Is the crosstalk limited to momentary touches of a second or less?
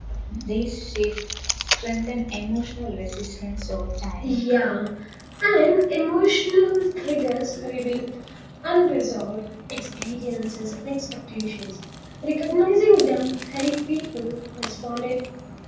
Yes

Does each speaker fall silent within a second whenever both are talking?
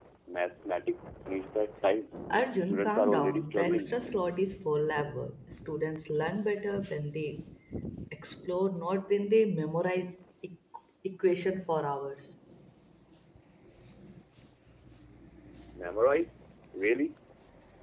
No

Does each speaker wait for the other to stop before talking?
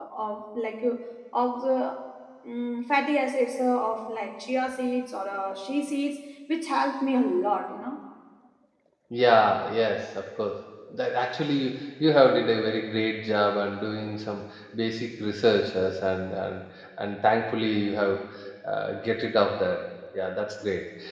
Yes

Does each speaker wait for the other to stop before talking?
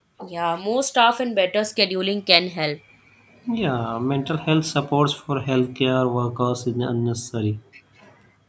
Yes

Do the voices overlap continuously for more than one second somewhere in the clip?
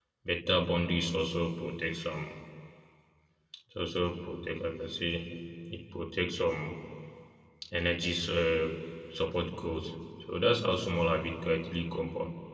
No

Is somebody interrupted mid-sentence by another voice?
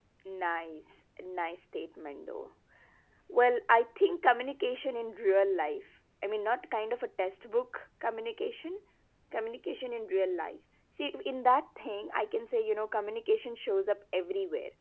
No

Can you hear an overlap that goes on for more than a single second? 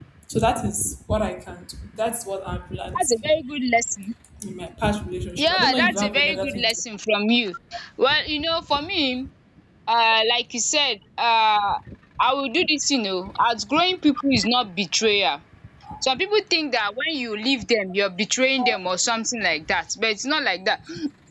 Yes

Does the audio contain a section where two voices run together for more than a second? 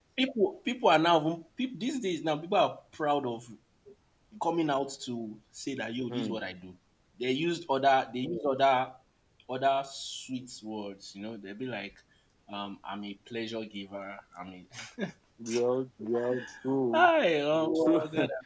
No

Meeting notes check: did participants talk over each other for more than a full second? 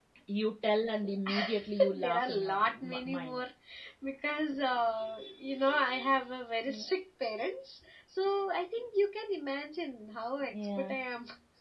Yes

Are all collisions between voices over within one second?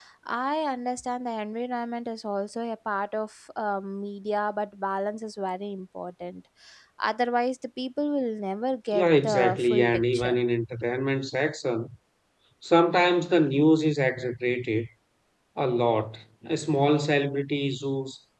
No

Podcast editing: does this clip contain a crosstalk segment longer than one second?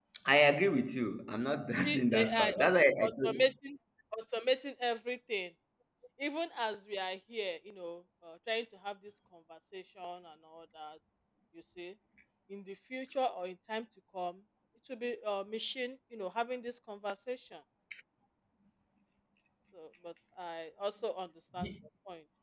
Yes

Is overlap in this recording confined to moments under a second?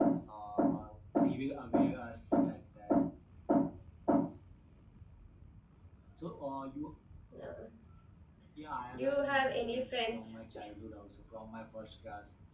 No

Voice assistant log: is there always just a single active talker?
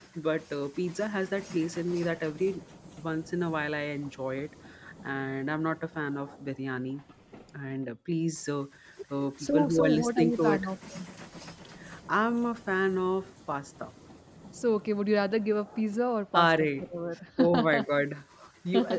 No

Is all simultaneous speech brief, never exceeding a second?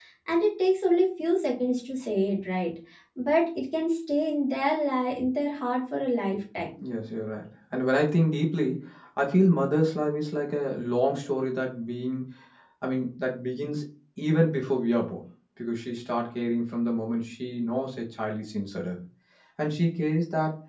Yes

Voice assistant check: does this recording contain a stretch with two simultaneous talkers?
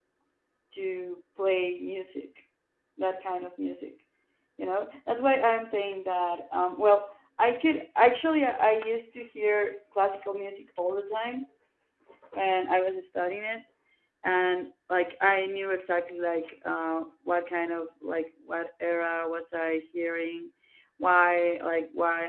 No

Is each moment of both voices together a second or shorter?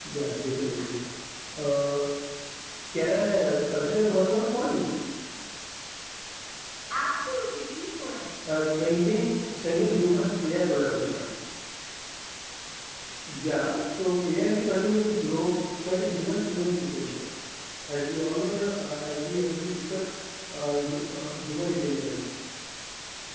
Yes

